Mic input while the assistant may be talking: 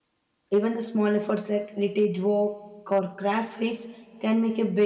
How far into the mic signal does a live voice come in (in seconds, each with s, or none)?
0.5 s